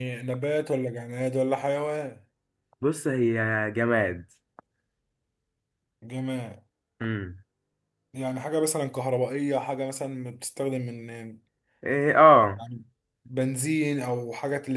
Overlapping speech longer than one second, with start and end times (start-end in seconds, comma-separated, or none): none